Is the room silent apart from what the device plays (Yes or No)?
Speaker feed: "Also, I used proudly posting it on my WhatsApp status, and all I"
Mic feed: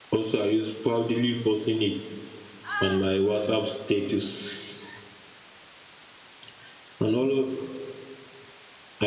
No